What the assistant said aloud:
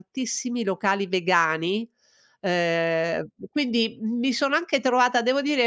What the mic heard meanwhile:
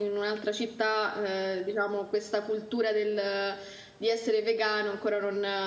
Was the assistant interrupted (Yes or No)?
Yes